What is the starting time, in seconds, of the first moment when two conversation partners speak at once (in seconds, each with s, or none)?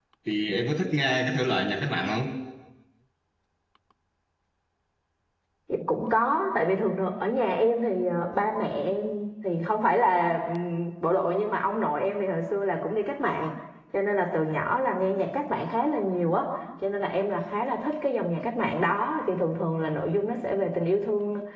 none